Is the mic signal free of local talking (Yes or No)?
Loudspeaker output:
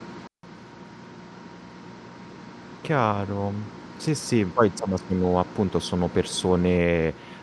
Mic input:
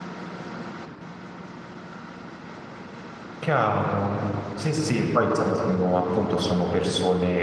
Yes